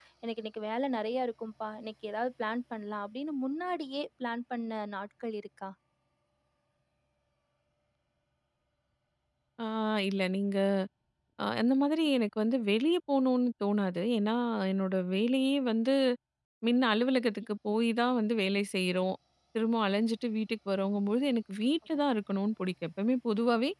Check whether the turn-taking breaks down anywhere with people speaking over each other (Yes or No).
No